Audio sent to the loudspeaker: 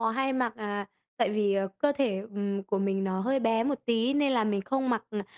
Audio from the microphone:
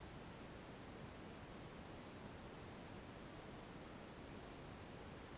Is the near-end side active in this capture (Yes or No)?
No